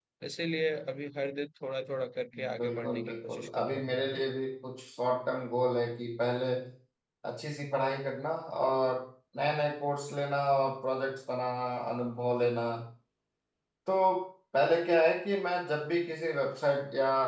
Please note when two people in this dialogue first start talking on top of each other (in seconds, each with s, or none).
2.3 s